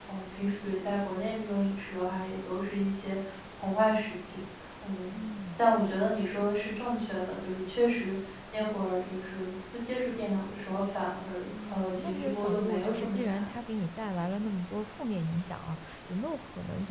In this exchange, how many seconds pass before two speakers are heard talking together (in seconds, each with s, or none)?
11.5 s